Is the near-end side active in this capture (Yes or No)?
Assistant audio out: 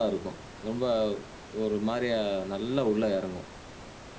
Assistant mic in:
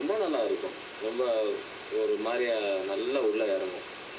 No